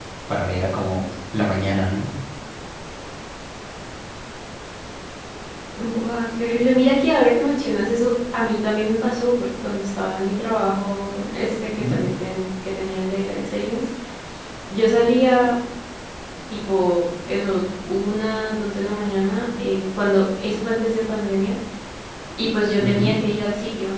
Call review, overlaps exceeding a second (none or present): none